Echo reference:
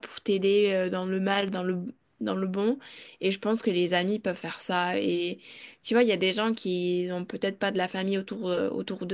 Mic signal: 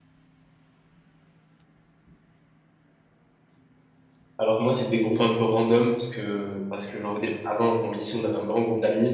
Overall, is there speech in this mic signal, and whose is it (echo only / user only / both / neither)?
user only